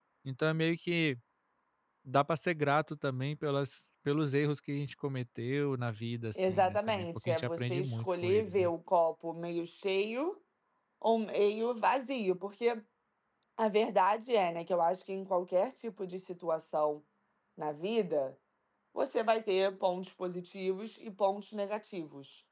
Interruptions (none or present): present